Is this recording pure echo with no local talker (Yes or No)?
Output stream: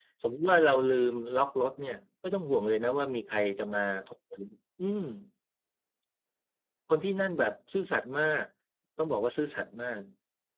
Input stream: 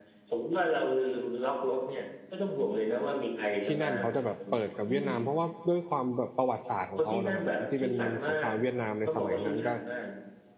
No